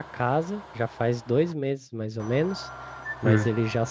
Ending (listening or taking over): listening